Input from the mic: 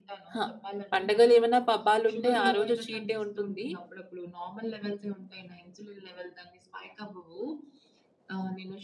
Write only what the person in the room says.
ఆ! పండగలేమైనా, పబ్బాలుంటే ఆరోజు చీట్ డే ఉంటుంది.

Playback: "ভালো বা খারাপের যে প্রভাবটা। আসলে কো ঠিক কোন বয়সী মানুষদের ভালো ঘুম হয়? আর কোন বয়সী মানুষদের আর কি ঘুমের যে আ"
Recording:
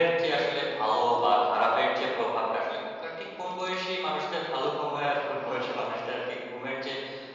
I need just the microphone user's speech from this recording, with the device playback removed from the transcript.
none

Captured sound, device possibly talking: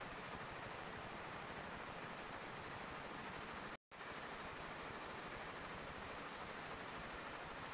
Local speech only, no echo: none

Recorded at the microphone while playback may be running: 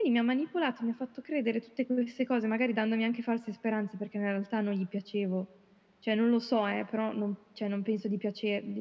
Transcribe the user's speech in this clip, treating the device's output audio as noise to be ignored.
none

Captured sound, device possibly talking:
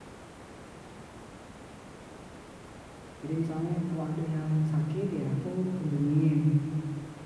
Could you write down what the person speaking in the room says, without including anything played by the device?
Jadi misalnya kalau ada yang sakit ya aku kunjungin,

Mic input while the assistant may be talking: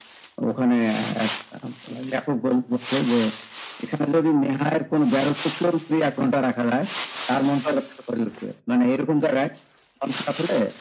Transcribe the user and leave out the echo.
none

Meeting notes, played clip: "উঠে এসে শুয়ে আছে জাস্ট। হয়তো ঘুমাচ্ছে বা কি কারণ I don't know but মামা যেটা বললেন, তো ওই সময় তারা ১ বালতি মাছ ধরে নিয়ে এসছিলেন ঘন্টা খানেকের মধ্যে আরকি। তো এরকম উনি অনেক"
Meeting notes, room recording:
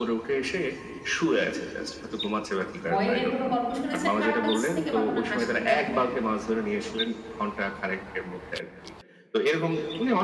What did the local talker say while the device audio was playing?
ভয়ের কোন গল্প শুনেছেন কারো কাছ থেকে? বা কোন হাসির গল্প

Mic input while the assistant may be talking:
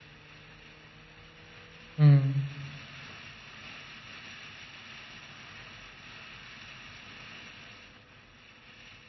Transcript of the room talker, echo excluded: Mhm.

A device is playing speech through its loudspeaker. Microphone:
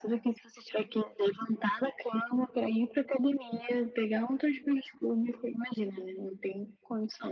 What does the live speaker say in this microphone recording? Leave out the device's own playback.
none

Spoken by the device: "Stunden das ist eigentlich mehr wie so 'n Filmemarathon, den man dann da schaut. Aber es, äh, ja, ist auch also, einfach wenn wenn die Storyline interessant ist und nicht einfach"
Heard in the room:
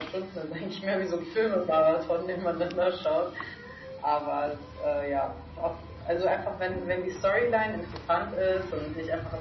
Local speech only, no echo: none

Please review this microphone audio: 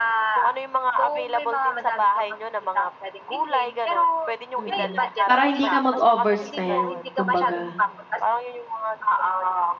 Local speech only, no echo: Mm, para hindi ka mag-overspend kumbaga,

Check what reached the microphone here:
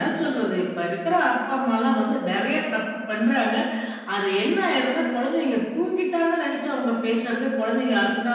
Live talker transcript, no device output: none

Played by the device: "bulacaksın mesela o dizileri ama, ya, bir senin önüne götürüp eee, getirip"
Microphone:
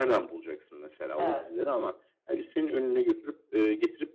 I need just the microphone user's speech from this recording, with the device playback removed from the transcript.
Evet, ya.

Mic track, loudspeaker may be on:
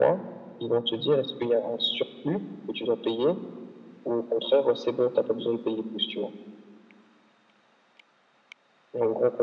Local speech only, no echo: none

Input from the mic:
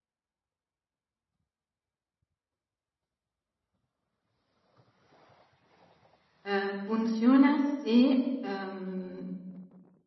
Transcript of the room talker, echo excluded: Uhm, funziona se, uhm,

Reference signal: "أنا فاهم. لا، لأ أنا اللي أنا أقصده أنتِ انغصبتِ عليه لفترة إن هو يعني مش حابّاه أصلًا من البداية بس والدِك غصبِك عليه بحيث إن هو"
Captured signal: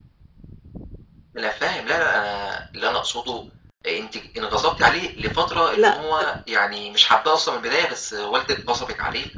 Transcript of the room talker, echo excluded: لأ ف

